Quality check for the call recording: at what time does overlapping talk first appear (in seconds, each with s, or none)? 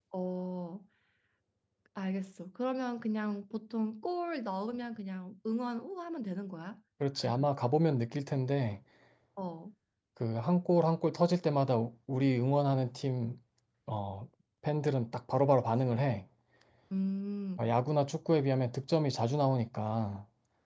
none